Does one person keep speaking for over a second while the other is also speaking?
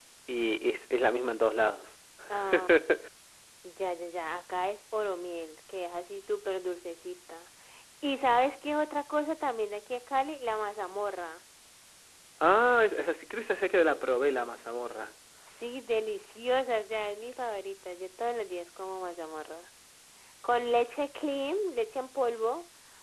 No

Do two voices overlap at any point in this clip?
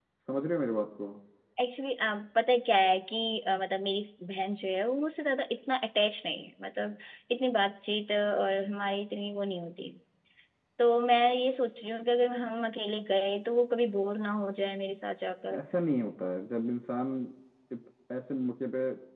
No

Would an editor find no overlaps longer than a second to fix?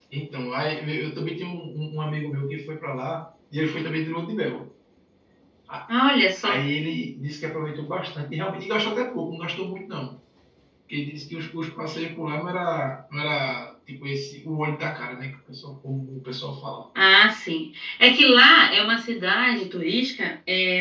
Yes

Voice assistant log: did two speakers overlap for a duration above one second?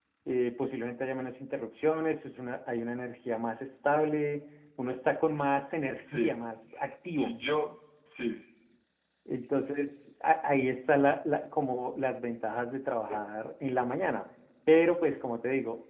No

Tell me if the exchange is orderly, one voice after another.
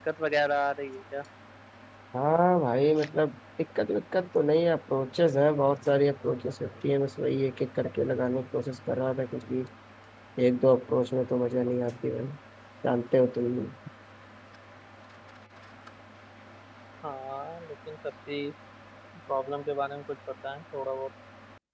Yes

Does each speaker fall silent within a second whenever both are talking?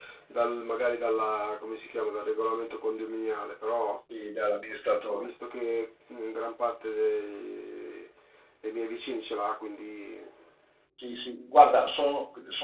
Yes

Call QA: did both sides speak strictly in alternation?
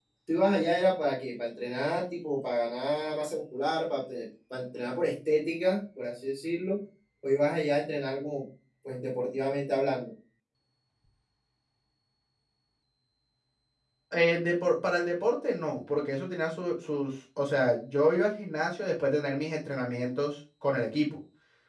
Yes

